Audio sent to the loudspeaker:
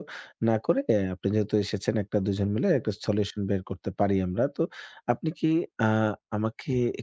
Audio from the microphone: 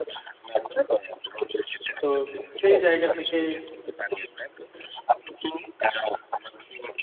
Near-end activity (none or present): present